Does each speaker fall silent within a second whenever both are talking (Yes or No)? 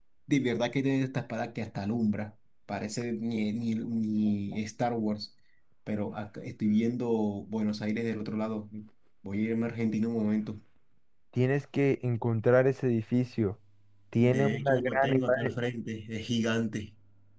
No